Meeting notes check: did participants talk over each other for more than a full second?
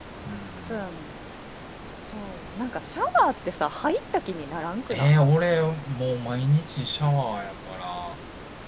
No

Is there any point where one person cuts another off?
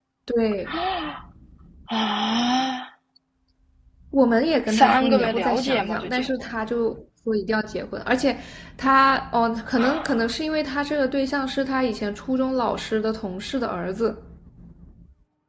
Yes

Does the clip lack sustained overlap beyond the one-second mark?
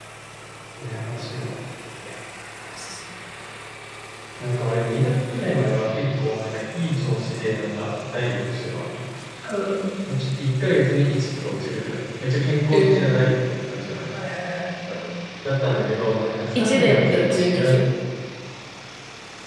No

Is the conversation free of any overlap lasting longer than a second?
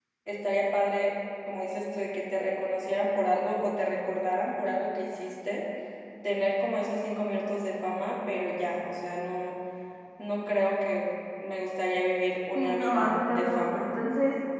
No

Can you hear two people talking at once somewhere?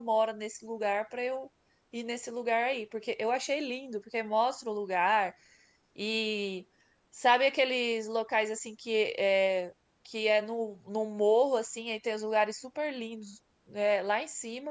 No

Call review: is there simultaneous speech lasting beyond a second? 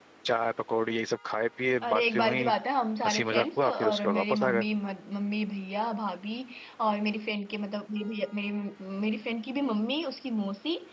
Yes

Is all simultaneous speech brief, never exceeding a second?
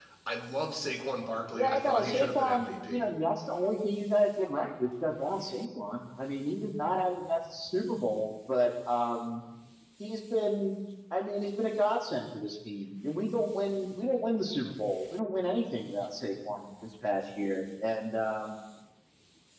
No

